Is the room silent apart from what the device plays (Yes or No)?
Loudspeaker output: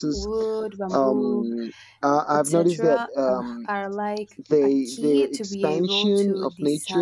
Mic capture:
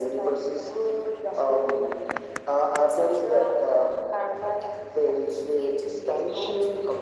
Yes